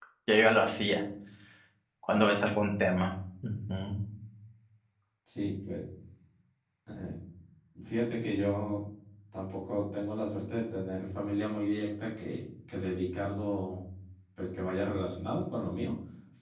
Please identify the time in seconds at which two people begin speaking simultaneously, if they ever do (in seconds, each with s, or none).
none